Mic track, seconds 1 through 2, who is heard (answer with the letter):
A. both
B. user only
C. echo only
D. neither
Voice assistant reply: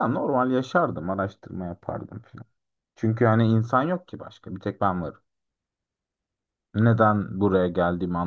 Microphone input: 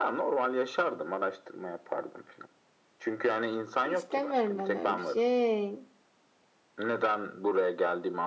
C